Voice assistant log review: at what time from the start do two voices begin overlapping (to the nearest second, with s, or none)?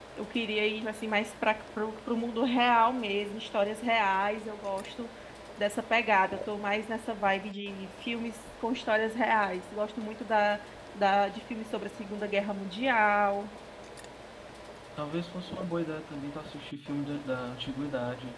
none